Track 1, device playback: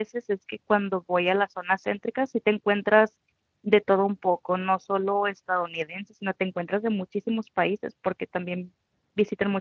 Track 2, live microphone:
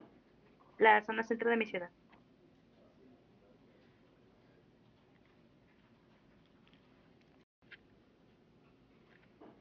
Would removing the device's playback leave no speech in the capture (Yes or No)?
No